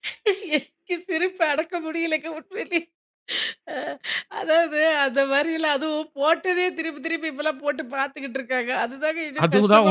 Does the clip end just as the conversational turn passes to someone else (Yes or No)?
Yes